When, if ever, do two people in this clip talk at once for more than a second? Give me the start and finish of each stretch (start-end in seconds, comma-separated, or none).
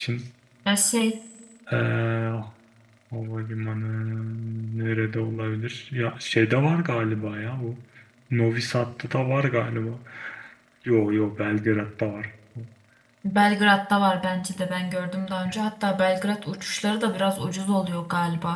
none